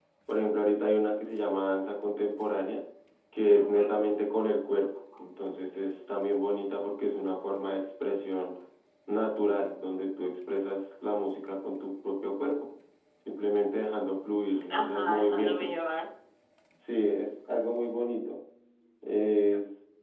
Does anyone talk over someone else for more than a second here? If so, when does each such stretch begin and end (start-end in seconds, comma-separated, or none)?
14.7-16.0